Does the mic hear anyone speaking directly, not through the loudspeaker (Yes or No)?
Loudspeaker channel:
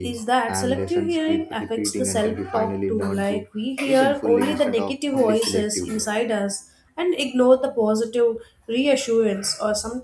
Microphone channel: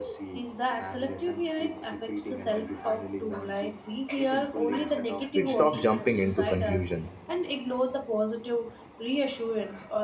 Yes